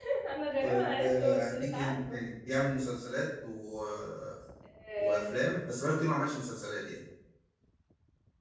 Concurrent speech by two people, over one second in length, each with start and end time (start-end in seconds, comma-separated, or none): 0.6-2.2